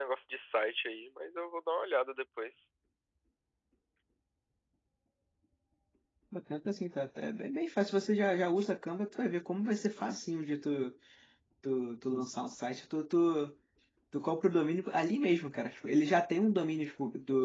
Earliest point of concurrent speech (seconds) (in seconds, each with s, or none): none